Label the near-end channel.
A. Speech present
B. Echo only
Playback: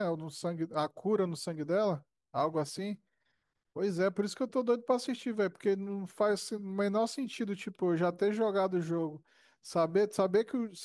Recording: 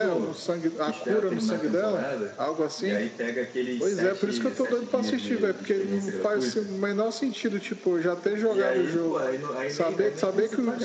A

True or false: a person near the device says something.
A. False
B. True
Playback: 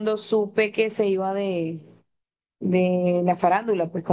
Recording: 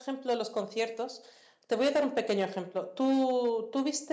B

